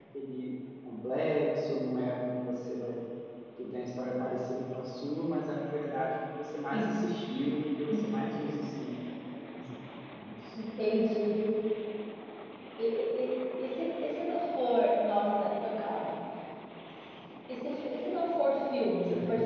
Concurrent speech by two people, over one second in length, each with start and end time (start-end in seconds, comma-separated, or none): none